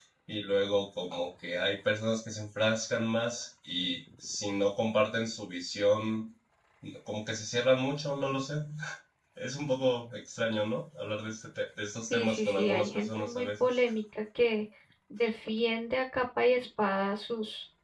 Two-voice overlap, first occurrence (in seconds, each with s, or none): 12.1 s